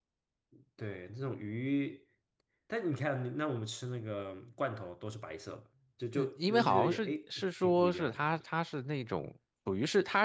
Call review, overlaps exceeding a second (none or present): present